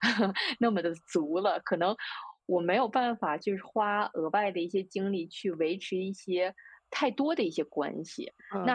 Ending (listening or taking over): taking over